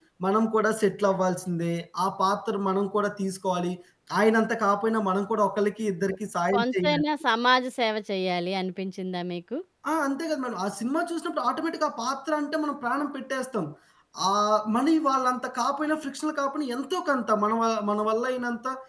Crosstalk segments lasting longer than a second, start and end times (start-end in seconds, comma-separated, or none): none